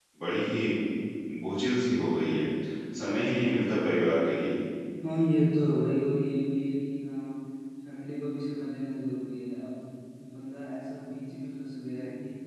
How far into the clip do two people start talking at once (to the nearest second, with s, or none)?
none